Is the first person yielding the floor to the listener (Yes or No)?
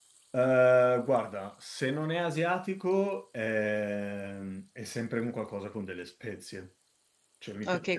Yes